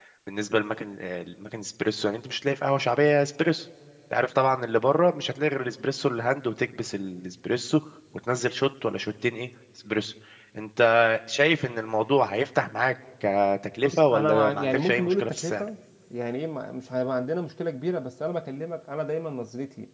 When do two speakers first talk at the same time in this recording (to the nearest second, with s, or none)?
14 s